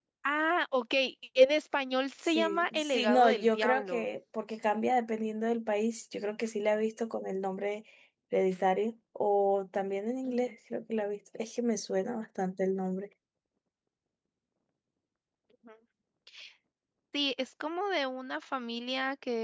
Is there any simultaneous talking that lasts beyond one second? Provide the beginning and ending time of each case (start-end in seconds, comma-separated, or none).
2.3-4.1